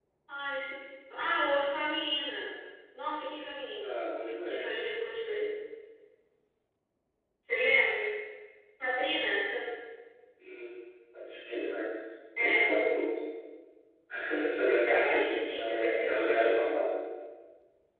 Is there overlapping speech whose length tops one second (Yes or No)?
Yes